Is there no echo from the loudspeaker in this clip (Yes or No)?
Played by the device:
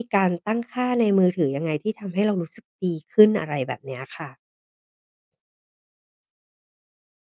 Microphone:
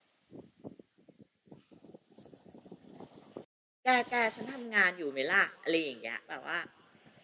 Yes